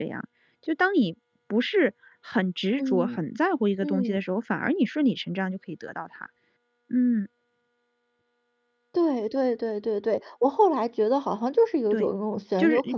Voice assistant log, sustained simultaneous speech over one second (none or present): none